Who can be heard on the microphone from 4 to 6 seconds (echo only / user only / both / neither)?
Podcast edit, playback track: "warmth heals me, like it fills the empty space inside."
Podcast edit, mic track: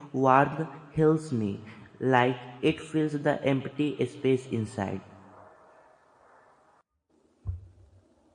echo only